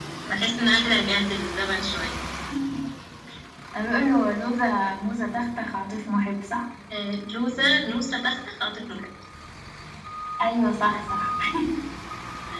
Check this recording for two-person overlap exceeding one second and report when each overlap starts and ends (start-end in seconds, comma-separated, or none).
none